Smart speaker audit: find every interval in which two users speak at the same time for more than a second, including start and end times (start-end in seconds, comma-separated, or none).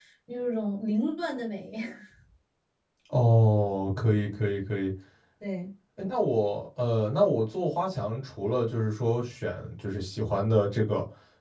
none